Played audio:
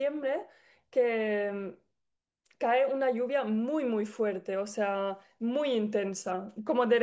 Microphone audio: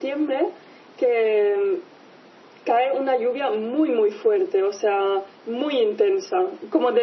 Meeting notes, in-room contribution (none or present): none